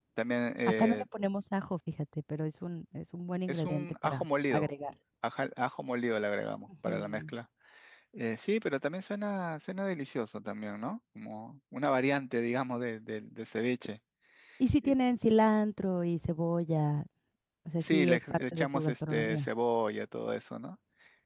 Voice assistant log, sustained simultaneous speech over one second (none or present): present